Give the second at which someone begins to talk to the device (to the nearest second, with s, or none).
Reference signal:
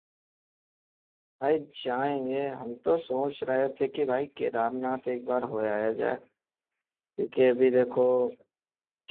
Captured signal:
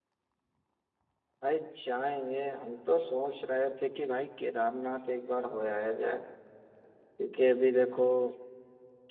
none